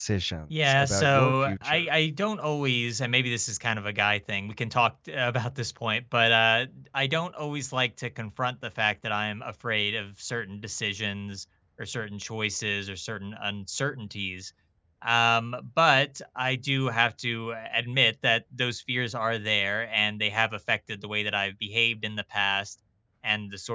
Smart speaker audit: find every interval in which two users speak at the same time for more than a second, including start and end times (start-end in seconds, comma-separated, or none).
0.6-1.9